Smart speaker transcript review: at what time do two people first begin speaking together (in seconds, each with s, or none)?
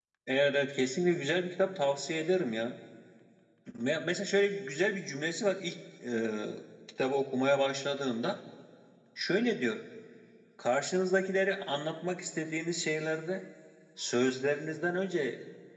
none